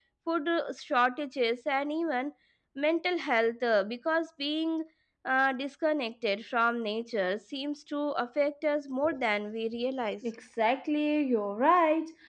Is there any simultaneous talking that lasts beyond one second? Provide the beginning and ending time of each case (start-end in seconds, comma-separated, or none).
none